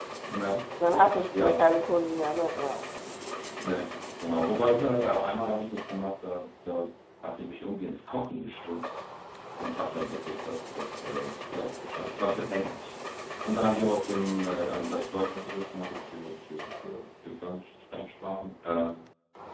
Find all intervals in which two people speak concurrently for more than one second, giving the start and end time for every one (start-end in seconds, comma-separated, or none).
none